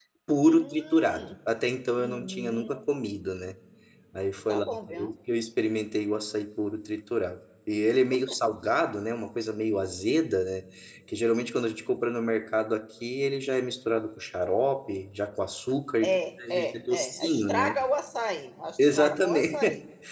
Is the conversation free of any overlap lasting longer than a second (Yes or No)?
No